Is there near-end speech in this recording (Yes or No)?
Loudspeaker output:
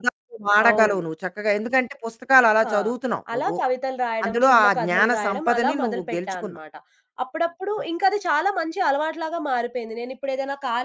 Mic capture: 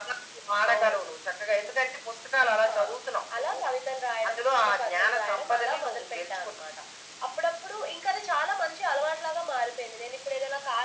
No